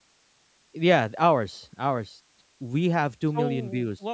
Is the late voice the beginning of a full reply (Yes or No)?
Yes